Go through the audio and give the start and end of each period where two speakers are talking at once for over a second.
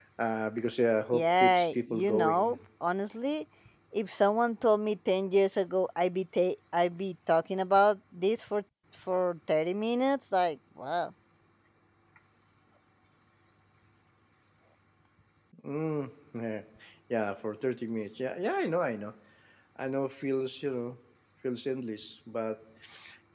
1.1-2.6

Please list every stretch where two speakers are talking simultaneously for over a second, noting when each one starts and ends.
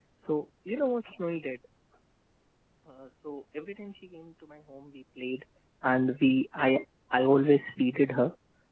none

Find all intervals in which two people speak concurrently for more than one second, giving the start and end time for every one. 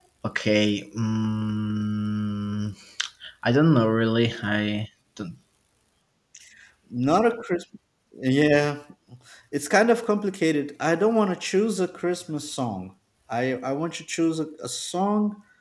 none

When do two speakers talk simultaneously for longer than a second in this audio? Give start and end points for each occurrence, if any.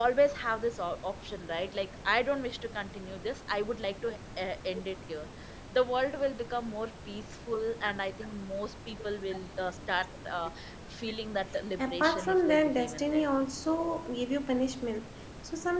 11.8-13.2

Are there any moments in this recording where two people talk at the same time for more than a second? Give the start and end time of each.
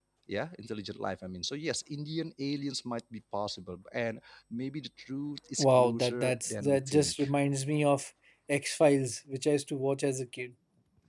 5.6-7.3

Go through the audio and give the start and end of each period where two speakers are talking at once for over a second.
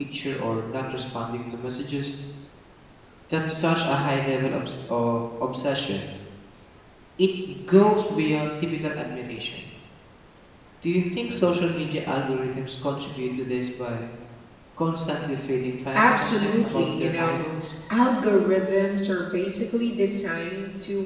15.9-17.4

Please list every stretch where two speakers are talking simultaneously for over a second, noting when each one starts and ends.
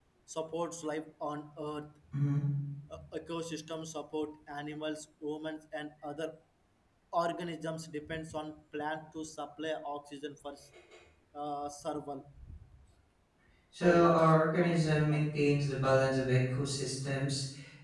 13.8-15.3

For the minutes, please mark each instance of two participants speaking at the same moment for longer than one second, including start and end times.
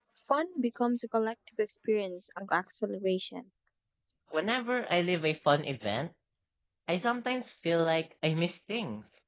none

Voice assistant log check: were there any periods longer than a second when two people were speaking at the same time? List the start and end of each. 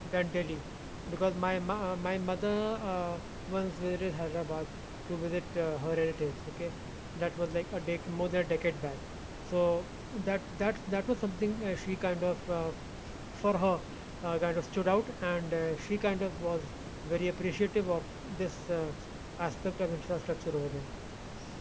none

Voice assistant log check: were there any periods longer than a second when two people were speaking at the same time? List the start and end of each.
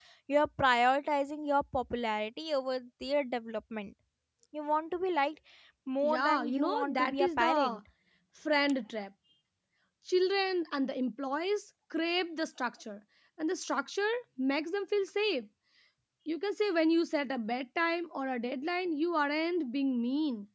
6.0-7.8

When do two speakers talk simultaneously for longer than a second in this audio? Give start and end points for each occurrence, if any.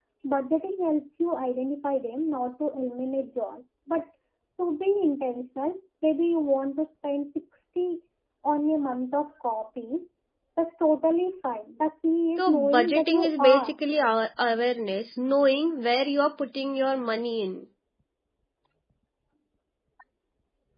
12.4-13.8

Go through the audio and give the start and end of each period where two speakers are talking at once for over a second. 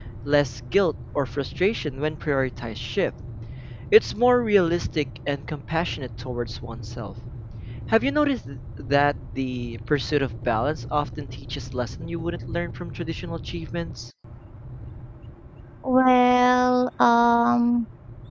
none

